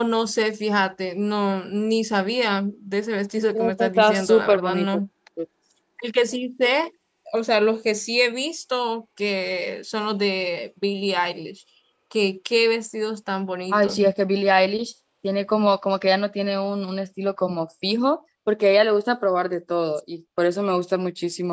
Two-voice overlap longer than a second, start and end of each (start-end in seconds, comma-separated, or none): 3.5-4.9